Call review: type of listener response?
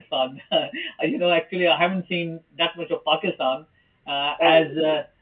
listening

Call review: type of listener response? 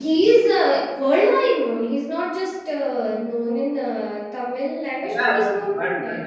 taking over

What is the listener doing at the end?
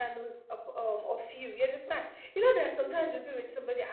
listening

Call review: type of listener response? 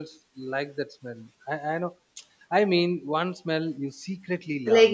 taking over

